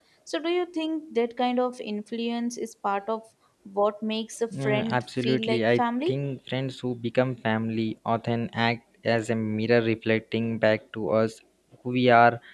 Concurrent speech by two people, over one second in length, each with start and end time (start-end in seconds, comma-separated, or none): 4.6-6.2